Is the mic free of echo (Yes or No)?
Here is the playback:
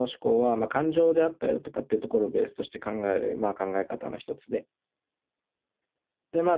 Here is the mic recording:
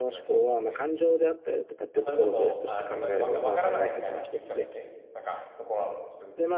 No